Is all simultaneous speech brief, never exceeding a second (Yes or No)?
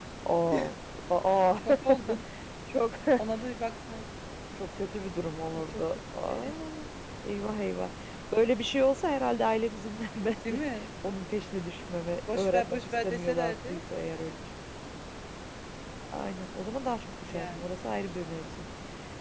No